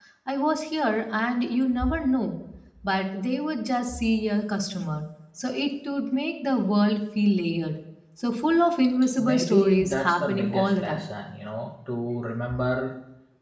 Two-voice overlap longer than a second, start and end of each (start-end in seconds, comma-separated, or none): 9.2-11.1